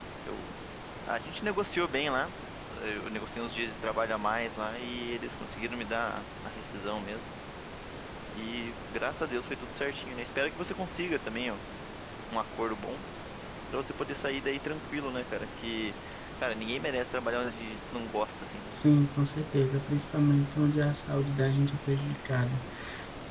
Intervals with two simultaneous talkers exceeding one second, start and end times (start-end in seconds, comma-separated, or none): none